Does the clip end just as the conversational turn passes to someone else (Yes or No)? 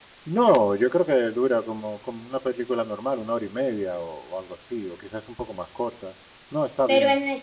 Yes